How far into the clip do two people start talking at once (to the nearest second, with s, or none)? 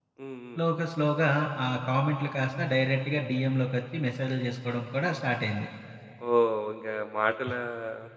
none